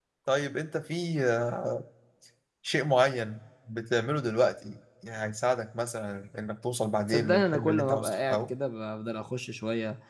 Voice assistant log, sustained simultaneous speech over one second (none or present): present